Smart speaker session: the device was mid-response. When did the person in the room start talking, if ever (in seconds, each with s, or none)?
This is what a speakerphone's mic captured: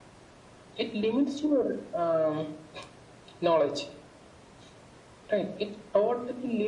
none